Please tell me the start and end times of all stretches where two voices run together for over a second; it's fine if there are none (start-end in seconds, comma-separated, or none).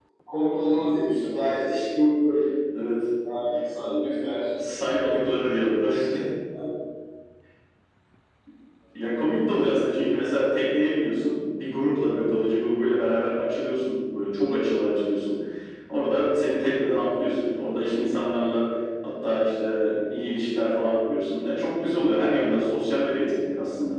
none